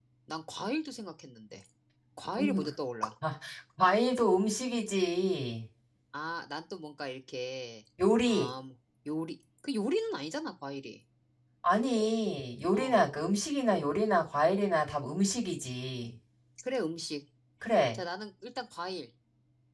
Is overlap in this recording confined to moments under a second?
Yes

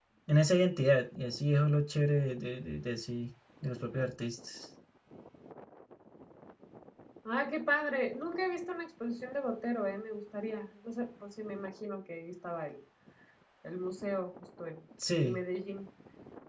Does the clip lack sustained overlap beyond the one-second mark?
Yes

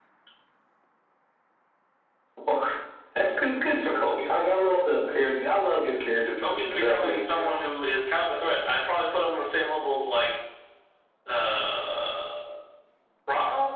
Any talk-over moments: Yes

